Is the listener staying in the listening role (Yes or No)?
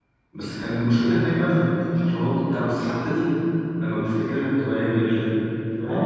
No